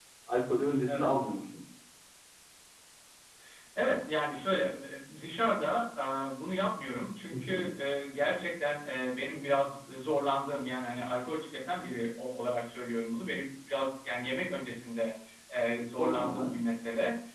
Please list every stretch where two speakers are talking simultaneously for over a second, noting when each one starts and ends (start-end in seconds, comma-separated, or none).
none